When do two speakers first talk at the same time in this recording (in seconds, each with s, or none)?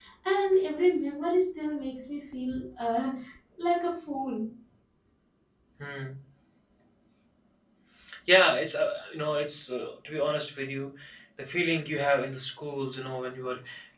none